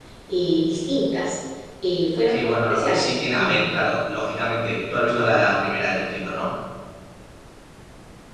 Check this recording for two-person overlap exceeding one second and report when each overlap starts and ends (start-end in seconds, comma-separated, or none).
2.3-3.6